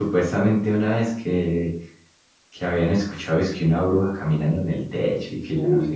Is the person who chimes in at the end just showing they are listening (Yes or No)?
No